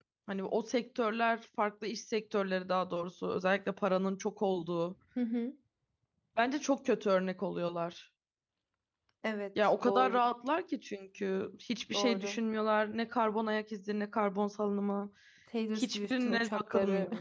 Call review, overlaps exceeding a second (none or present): present